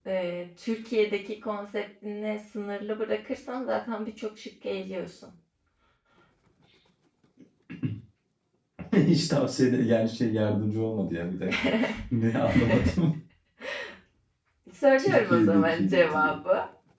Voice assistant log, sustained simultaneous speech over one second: present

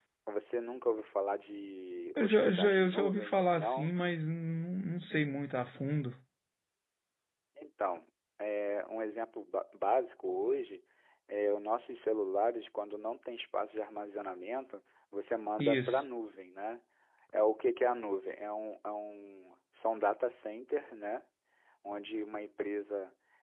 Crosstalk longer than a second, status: present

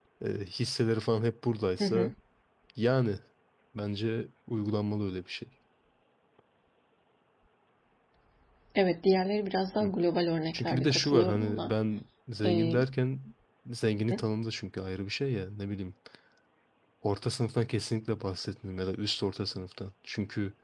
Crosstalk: present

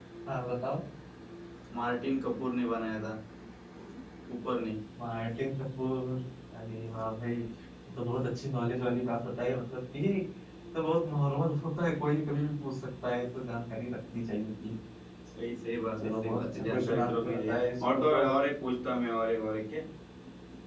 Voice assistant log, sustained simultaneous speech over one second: present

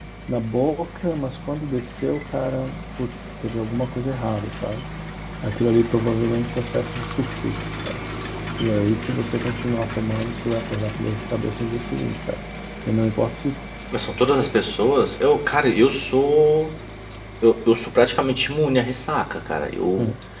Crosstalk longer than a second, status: none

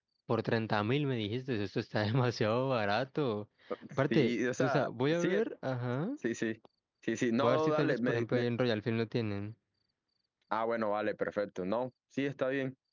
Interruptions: present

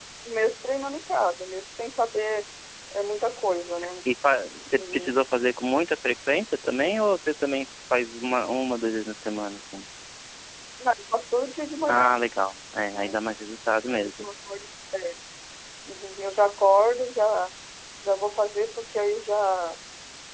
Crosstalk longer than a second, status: none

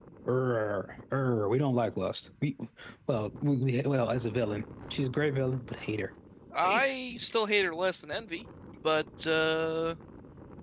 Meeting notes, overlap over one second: none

